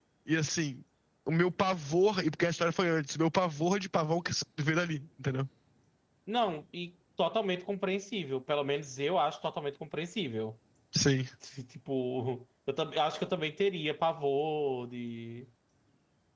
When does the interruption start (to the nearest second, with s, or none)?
none